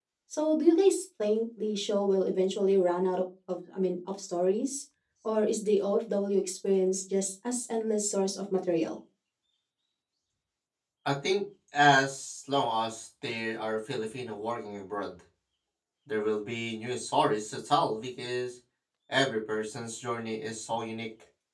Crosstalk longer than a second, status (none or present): none